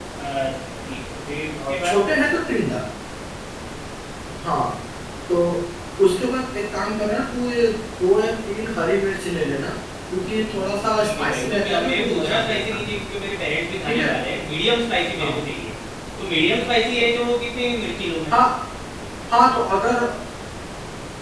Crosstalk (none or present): present